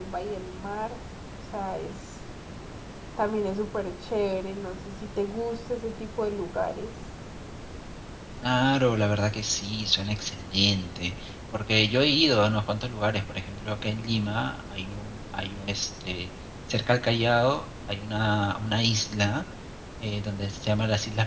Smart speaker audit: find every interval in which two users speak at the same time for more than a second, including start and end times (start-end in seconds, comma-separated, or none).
none